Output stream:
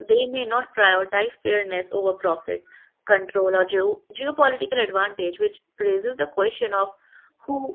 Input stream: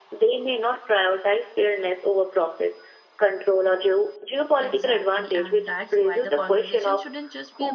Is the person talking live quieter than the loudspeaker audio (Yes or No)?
Yes